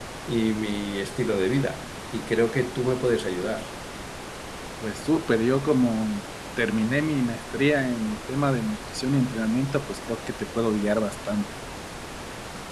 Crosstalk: none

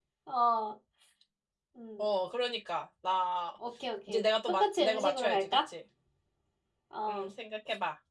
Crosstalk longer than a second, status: present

